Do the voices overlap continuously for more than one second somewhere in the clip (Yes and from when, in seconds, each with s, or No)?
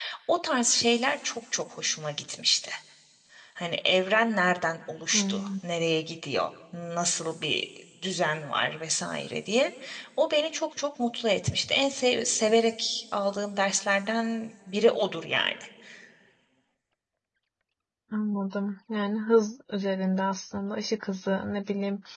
No